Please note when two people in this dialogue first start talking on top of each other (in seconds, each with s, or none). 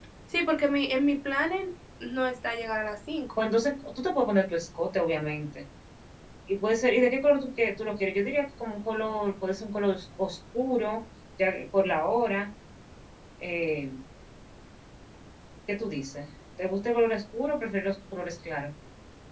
none